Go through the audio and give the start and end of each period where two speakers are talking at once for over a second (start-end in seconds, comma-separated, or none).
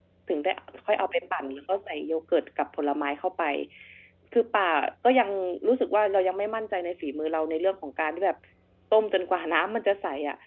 none